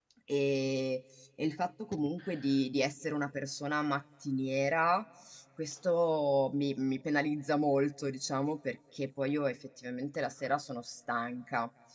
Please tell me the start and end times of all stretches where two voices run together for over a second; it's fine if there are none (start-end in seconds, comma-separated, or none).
none